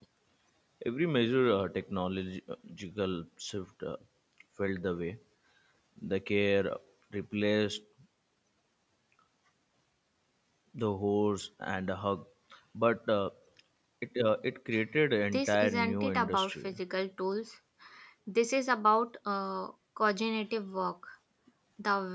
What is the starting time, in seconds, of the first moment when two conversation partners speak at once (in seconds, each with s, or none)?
15.3 s